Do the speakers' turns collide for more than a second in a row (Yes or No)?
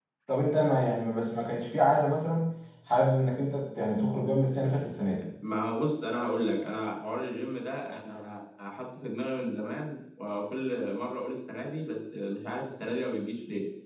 No